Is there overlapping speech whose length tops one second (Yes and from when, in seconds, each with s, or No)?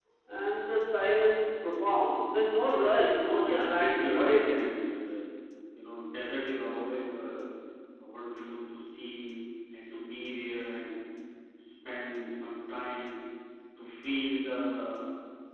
Yes, from 3.4 s